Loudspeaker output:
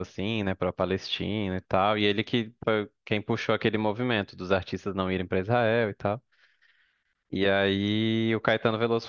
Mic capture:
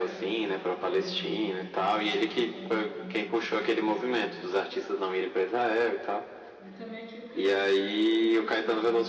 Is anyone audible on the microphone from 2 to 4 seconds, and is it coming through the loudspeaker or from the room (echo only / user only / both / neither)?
both